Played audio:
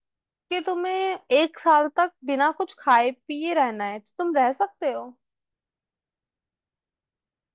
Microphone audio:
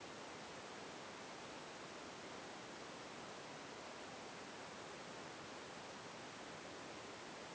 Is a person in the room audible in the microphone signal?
No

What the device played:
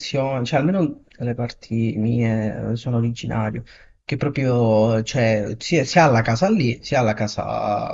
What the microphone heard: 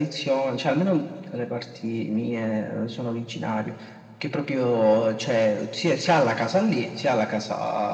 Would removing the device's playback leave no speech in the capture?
Yes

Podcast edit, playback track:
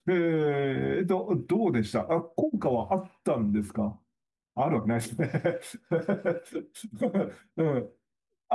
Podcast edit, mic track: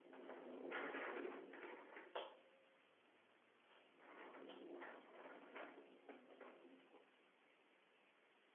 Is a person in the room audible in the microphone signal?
No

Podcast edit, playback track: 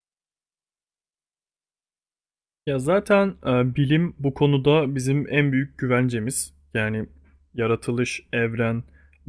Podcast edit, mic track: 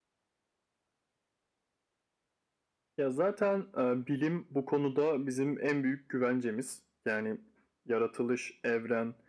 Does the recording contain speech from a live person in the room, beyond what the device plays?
No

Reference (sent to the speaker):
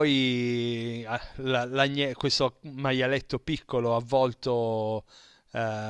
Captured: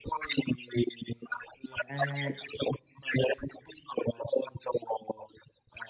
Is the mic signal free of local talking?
No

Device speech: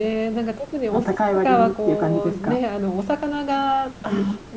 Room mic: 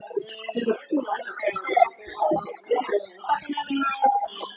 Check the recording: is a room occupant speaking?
No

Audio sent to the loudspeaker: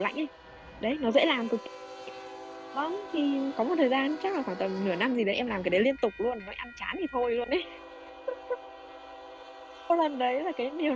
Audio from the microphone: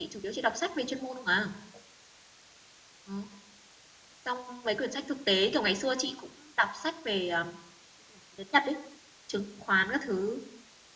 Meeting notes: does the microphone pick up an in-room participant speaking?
Yes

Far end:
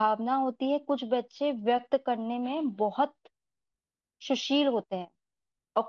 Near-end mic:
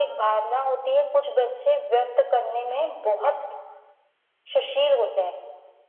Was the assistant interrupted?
No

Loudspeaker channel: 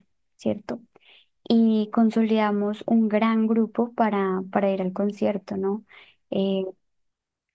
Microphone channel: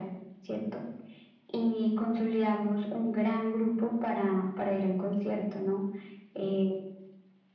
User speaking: No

